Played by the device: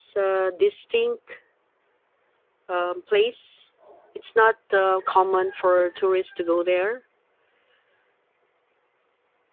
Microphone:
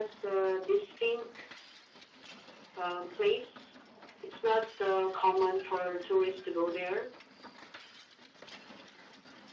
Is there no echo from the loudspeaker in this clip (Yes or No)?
No